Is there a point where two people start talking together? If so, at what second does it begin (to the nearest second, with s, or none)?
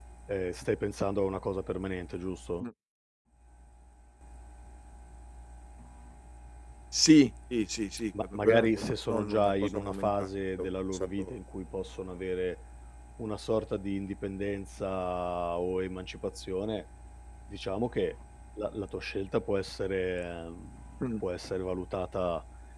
8 s